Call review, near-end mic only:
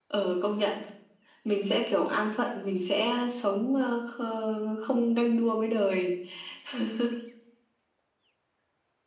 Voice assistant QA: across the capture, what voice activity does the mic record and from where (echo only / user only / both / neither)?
echo only